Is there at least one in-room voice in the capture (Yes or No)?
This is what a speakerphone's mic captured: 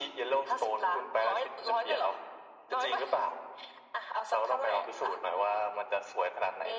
No